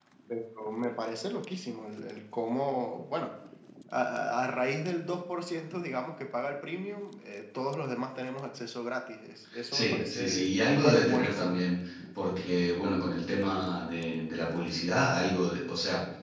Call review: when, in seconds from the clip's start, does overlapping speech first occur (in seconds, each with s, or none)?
9.7 s